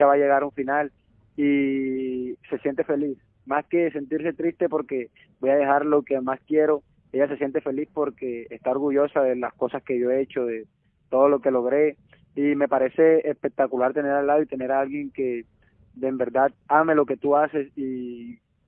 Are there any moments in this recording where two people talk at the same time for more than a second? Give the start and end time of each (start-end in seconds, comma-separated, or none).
none